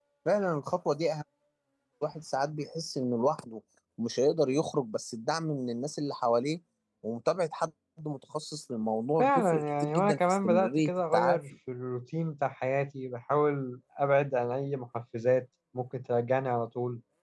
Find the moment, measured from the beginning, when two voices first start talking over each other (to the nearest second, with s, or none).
9 s